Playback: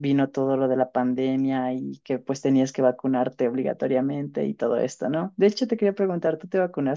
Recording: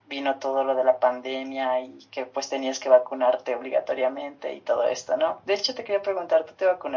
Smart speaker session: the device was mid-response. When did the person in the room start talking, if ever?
none

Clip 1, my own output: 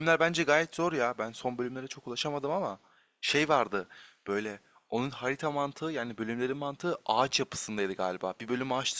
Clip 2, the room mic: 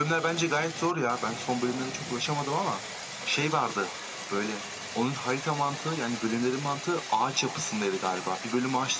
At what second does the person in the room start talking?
none

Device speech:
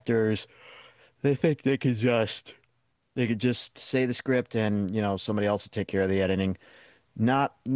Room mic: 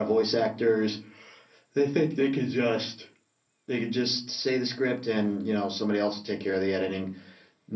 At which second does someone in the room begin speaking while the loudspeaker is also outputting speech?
none

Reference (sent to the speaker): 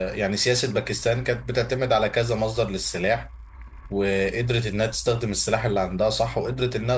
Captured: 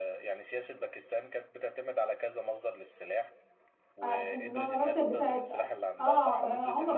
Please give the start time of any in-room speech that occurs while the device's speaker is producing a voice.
4.0 s

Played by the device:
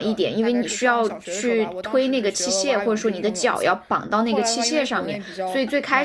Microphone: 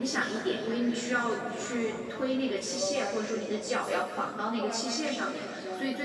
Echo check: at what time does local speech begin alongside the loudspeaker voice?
none

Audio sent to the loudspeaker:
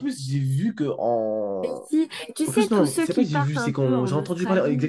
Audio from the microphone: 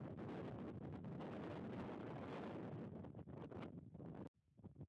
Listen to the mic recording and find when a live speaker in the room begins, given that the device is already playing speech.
none

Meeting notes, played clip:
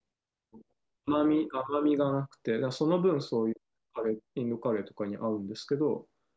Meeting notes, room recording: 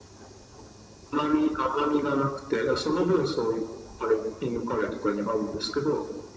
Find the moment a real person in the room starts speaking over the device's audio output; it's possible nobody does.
none

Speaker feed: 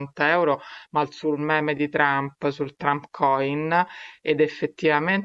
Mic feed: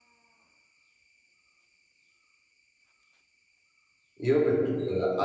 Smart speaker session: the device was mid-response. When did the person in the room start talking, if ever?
4.2 s

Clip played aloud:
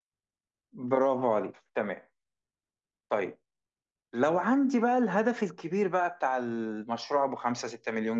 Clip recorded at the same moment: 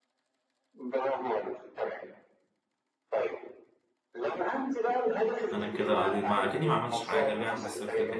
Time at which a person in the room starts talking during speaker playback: 5.5 s

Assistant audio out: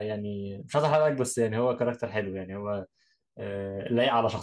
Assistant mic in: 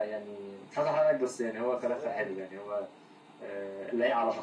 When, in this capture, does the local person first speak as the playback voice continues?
1.7 s

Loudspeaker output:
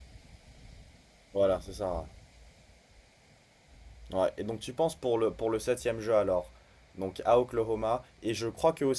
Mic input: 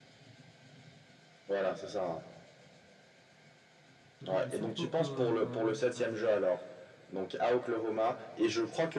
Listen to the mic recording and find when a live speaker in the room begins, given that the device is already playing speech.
4.2 s

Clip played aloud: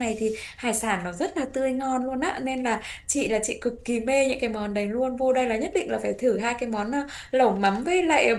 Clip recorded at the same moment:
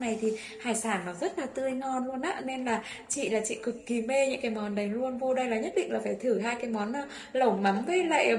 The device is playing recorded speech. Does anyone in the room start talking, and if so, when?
none

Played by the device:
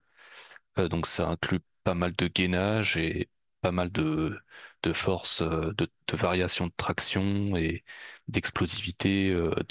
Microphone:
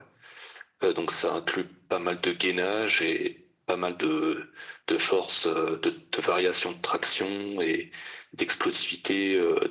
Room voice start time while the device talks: none

